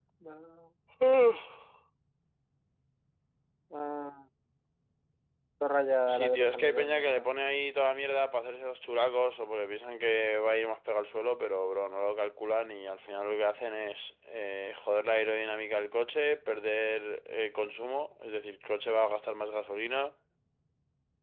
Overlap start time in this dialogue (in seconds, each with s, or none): 6.1 s